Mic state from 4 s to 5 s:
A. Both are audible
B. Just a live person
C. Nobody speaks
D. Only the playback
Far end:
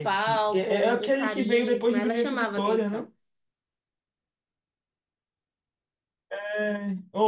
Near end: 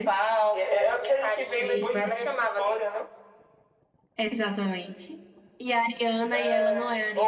B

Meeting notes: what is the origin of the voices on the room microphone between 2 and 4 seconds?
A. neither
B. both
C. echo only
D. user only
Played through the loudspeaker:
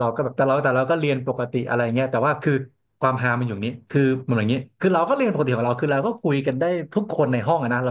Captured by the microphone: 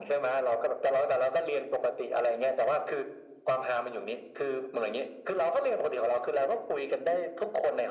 C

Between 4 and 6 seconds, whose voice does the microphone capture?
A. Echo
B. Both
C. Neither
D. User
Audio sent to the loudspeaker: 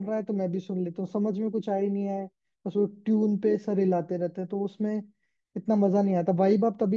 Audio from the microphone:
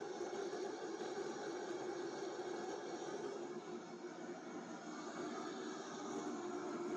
C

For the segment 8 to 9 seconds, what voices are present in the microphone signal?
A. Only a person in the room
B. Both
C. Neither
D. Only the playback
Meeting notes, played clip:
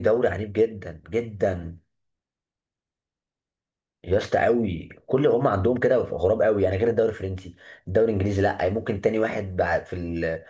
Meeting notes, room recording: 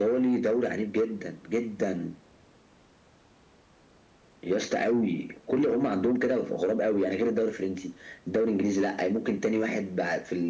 D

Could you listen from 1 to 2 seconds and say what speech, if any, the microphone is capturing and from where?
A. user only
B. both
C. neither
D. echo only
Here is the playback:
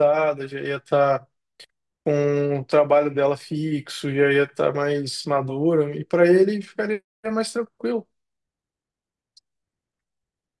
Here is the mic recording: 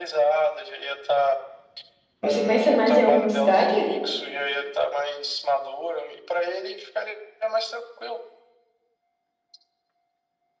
D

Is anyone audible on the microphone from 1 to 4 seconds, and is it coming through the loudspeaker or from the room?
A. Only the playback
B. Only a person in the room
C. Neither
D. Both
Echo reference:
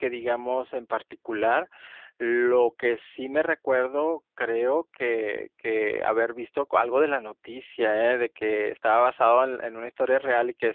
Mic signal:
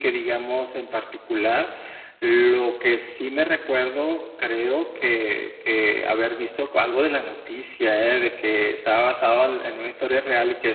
A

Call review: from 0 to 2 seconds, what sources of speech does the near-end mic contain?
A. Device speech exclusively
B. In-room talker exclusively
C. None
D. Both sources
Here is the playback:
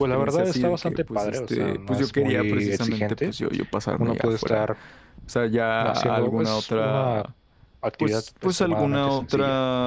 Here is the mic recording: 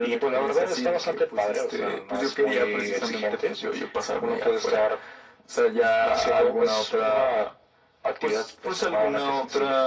A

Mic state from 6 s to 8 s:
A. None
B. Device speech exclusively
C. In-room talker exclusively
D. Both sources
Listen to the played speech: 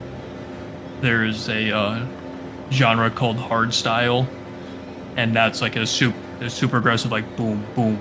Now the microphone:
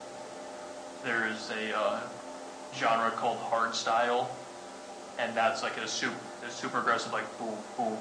B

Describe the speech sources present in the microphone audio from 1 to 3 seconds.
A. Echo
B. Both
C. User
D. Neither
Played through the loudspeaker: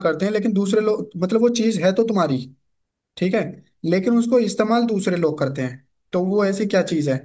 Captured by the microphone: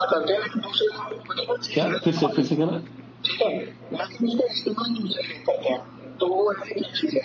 B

